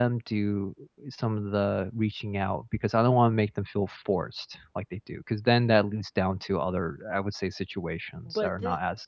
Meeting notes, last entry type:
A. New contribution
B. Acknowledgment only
A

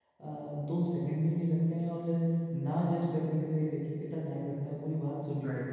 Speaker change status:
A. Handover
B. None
A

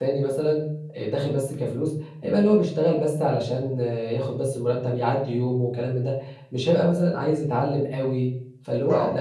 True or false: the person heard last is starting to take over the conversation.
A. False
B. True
B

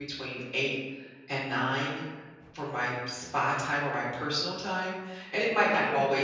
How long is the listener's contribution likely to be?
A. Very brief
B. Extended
A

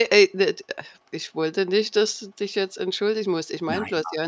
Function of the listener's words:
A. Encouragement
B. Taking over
A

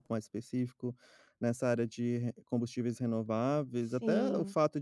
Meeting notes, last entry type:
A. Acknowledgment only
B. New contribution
A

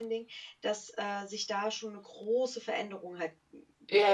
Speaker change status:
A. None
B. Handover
B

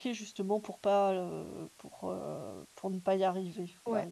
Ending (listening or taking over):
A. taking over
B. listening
A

